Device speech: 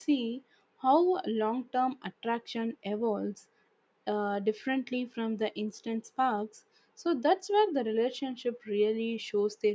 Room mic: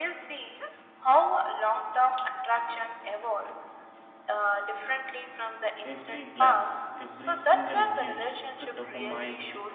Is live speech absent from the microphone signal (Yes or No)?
No